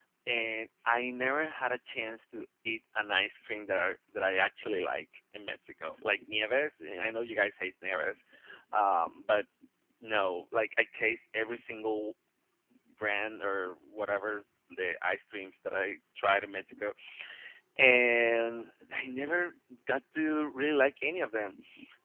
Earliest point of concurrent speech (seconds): none

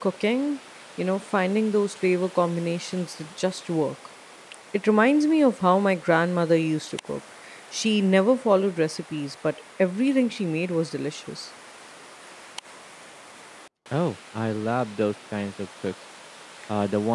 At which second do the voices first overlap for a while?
none

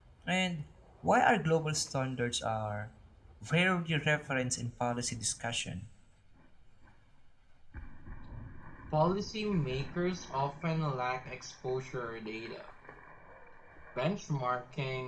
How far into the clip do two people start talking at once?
none

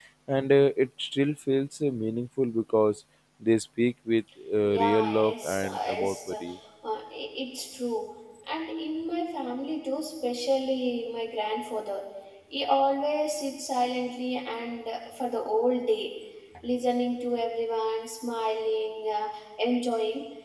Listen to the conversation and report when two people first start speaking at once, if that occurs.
5 s

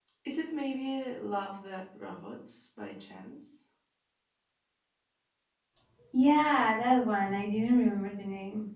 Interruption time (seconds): none

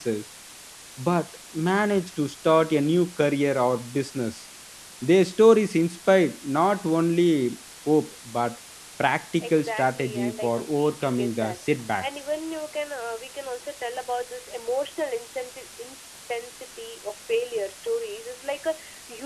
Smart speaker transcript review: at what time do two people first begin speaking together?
9 s

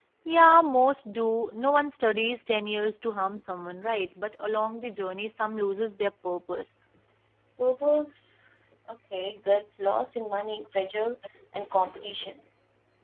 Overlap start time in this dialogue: none

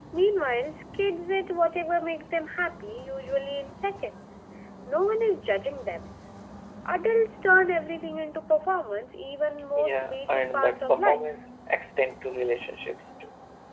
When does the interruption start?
10 s

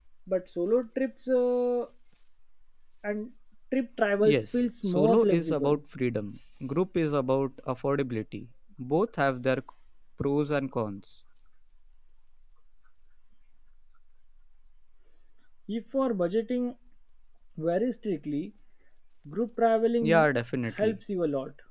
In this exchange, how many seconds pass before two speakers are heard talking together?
4 s

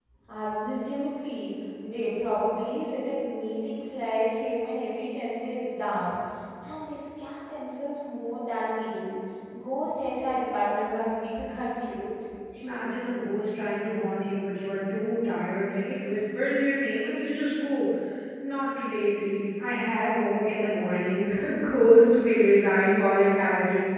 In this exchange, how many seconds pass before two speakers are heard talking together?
none

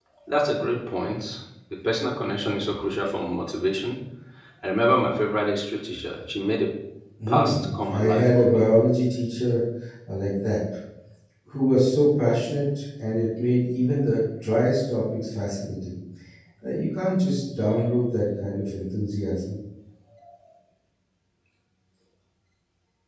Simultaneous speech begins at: 7 s

